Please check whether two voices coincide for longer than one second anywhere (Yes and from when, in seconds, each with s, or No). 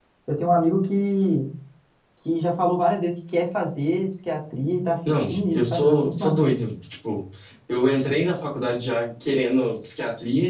Yes, from 5.3 s